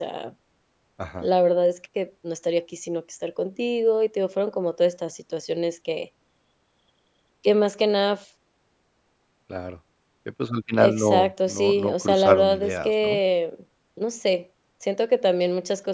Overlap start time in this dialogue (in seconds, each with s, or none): 10.8 s